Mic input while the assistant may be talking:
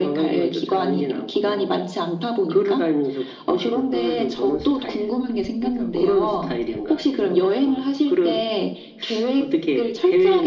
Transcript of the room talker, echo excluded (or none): none